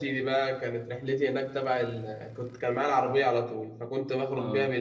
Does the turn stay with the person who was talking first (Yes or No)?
Yes